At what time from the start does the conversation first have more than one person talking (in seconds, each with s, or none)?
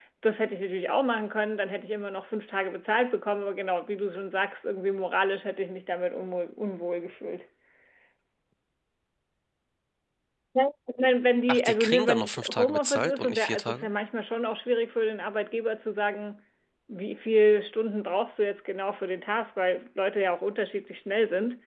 11.5 s